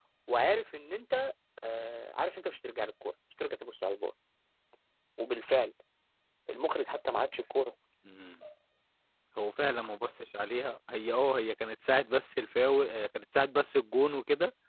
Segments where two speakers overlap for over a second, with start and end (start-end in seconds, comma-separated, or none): none